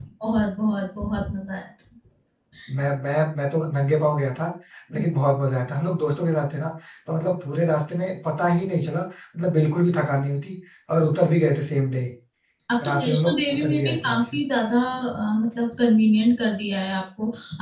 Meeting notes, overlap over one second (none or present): present